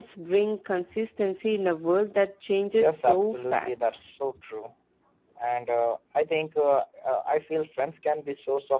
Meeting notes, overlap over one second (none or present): present